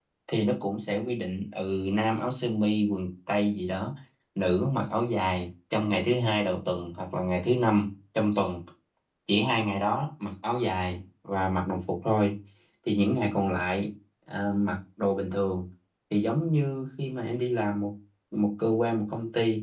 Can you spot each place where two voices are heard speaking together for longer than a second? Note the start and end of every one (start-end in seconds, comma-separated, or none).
none